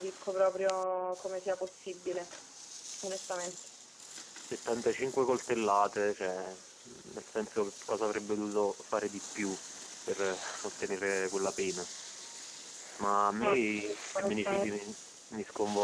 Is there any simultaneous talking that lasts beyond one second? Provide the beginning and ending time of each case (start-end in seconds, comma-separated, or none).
13.4-14.8